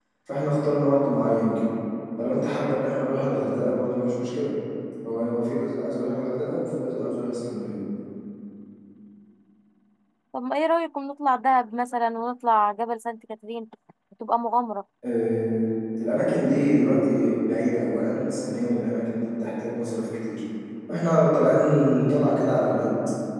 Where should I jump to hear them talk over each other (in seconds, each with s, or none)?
none